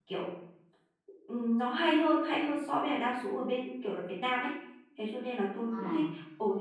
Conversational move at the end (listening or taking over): listening